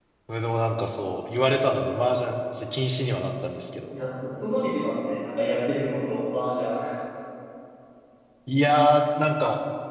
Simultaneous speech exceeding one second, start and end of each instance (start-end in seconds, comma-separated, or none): none